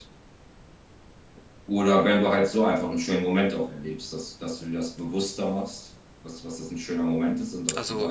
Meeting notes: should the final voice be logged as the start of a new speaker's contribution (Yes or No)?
No